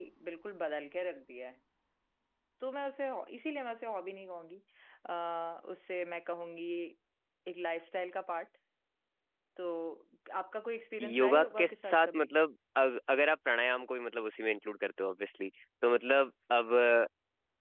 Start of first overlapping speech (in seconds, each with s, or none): 11.0 s